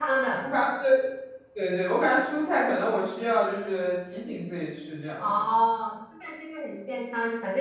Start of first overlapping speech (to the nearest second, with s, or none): none